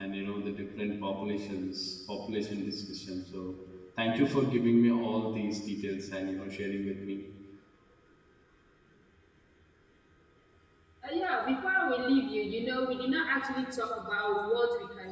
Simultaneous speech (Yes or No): No